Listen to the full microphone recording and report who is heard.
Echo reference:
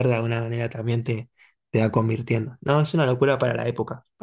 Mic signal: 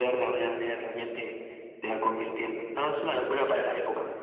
echo only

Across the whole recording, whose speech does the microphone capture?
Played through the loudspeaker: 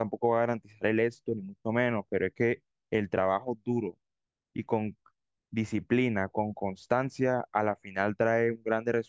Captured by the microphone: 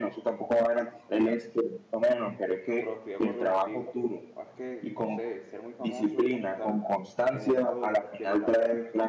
both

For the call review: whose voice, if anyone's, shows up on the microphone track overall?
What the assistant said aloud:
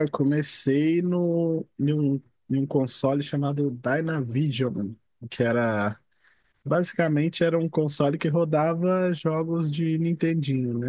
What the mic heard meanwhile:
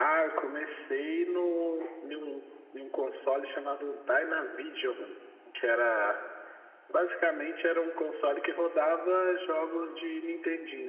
echo only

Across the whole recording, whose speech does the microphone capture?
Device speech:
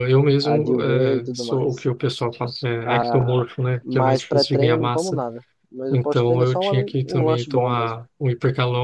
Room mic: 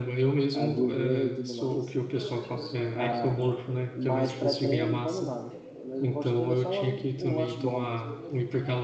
both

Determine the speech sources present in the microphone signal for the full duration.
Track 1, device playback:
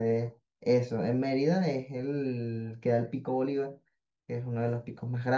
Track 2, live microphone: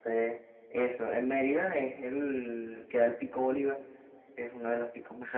echo only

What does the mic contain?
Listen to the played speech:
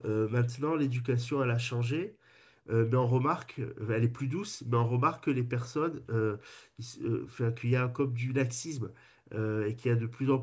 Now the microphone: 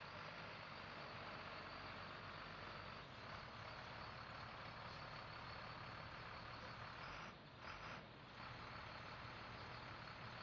neither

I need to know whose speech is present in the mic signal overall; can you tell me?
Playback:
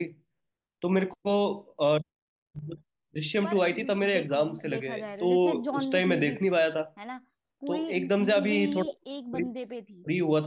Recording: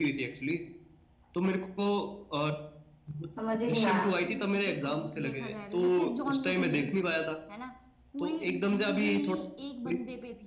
both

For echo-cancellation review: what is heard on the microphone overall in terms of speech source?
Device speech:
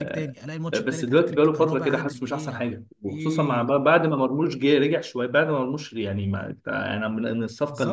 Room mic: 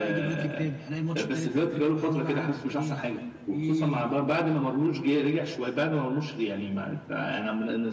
echo only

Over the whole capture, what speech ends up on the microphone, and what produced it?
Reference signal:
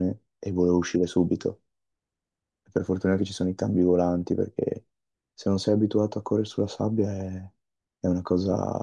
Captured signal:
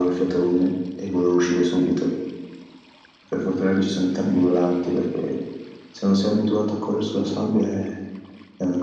echo only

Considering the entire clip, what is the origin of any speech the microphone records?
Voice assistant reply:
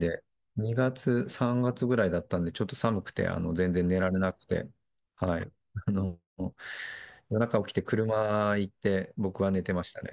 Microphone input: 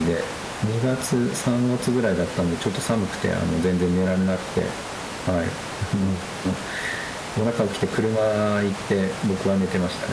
echo only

